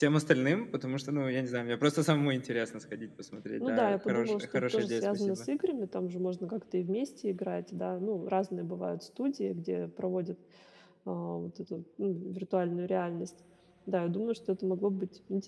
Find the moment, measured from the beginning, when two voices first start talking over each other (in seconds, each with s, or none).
3.6 s